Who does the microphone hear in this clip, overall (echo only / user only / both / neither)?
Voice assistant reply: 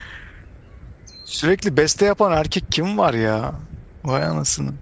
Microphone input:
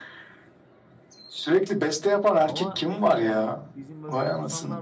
both